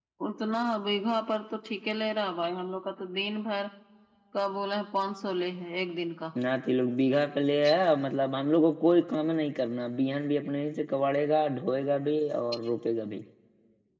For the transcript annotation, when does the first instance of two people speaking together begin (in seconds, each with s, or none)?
none